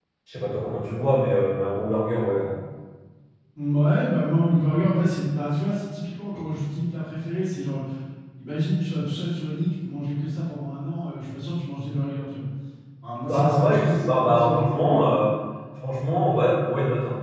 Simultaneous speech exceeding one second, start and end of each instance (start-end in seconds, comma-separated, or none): 13.3-15.1